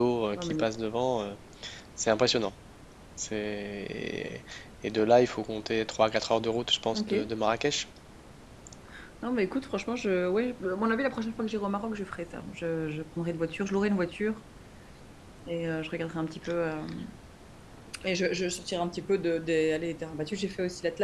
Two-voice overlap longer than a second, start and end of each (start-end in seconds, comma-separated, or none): none